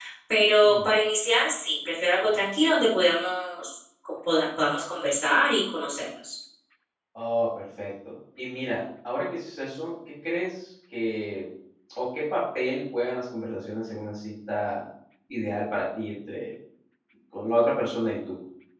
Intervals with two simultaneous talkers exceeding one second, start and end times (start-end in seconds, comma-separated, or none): none